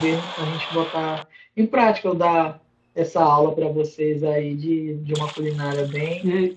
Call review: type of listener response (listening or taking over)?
taking over